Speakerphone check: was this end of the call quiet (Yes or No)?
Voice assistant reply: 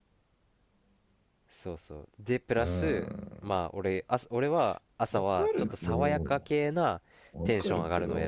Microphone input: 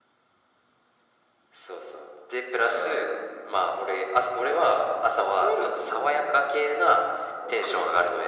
Yes